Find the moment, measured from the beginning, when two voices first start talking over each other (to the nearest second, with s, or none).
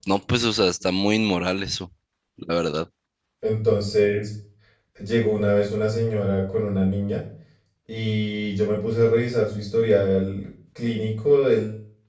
none